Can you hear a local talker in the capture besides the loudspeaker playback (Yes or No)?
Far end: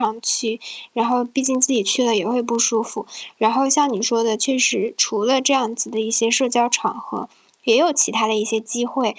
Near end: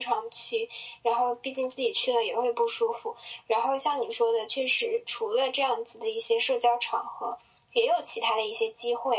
No